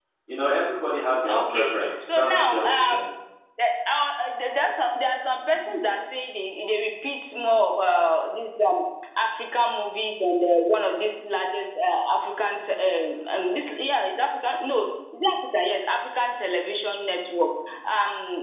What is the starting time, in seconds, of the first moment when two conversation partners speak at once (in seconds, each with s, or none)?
1.2 s